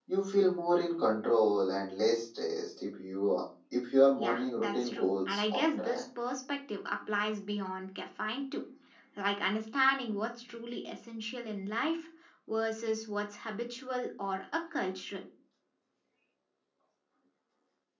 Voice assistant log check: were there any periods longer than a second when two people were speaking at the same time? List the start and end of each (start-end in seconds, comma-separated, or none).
4.2-6.0